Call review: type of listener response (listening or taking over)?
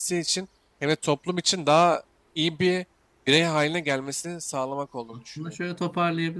taking over